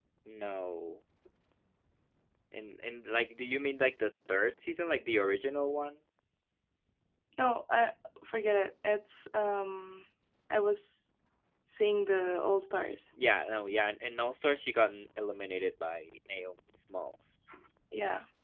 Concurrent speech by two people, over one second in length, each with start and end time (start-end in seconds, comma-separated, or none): none